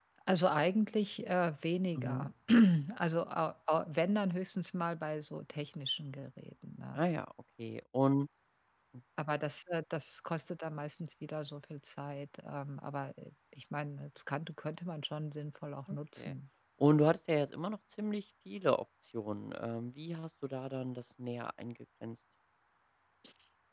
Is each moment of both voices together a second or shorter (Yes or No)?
Yes